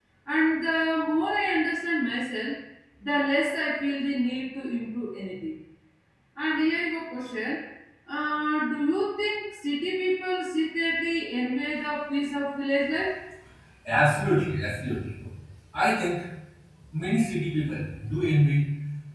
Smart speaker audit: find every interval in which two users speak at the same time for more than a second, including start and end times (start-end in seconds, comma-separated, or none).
none